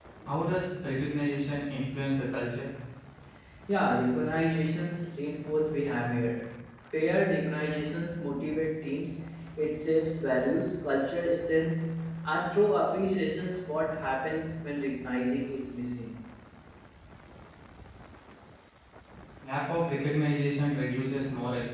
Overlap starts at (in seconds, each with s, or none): none